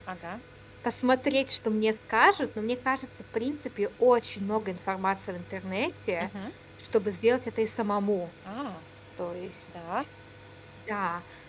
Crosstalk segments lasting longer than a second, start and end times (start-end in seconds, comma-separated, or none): none